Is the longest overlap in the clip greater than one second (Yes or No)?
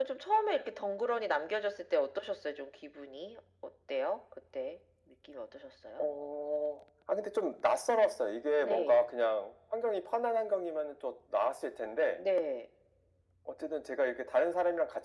No